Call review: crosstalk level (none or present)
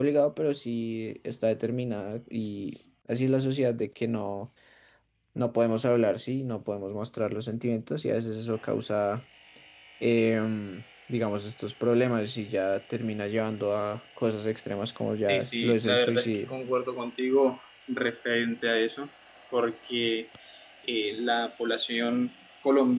present